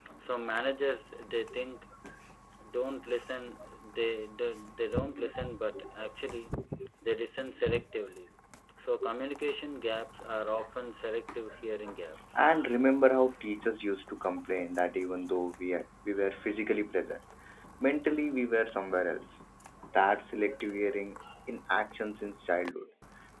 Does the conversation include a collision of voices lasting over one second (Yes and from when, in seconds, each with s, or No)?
No